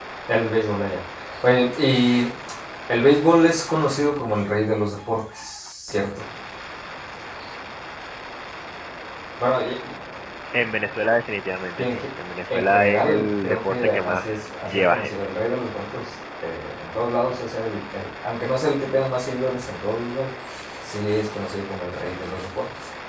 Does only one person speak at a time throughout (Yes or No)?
No